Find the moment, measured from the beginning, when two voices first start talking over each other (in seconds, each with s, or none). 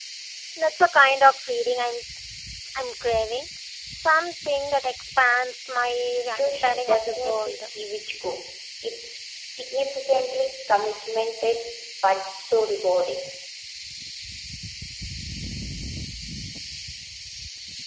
6.3 s